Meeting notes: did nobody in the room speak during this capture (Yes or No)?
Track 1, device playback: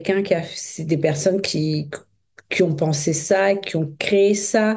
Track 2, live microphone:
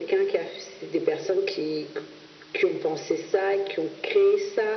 Yes